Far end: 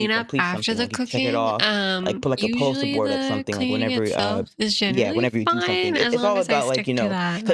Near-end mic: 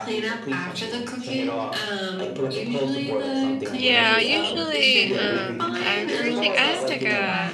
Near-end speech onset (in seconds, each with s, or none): 3.7 s